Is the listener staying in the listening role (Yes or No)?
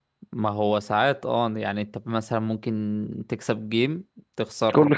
Yes